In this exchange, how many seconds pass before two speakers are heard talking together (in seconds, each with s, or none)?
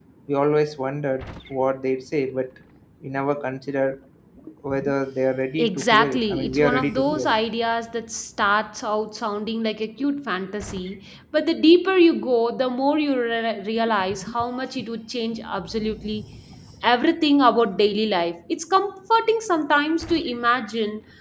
5.6 s